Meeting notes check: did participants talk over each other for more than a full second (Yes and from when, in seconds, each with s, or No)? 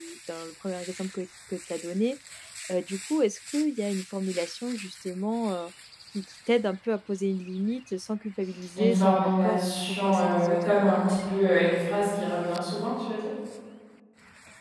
Yes, from 8.8 s